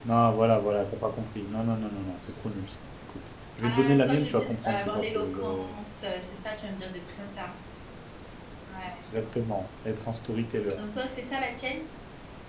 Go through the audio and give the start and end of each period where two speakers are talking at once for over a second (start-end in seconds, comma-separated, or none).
3.6-5.7